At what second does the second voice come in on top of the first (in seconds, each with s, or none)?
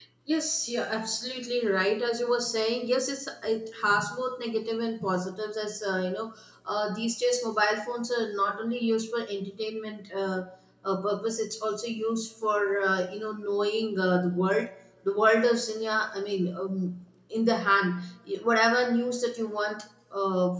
none